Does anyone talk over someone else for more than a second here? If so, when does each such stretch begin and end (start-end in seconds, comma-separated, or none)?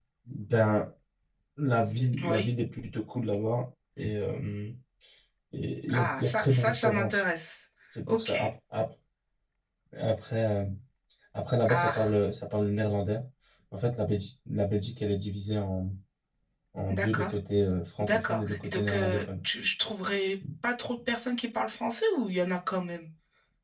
5.9-7.2, 18.0-19.2